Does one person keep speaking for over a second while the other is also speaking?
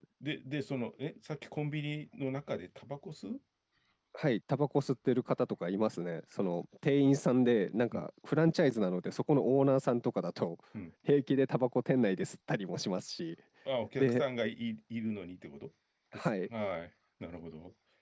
No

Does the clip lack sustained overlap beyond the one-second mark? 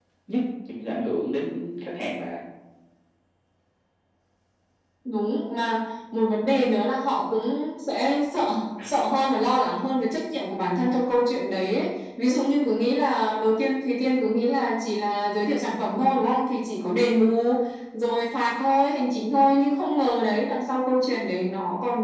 Yes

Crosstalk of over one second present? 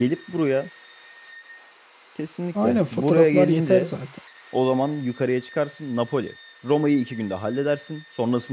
Yes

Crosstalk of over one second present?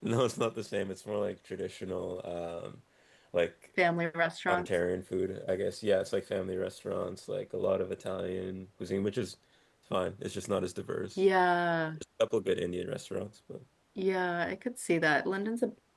No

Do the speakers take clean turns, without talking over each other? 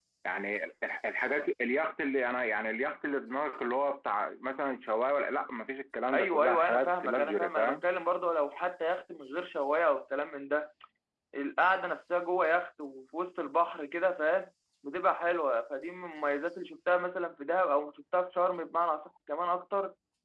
No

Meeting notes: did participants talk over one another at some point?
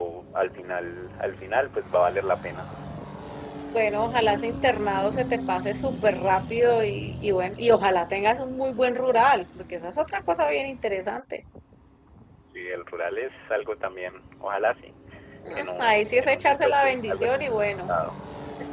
Yes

